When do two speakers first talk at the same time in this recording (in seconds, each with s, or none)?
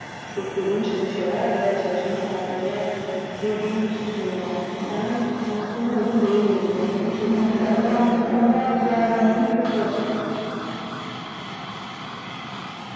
7.2 s